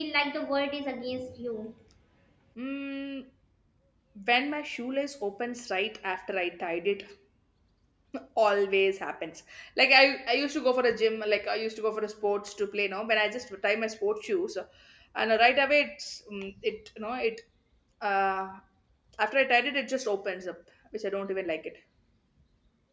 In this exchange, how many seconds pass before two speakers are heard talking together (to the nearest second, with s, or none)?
none